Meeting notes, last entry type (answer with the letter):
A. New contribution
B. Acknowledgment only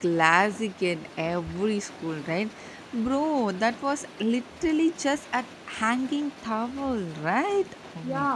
A